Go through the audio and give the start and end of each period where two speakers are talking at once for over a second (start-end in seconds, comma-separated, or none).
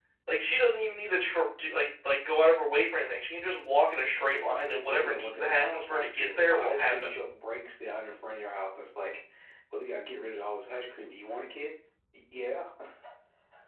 4.3-7.1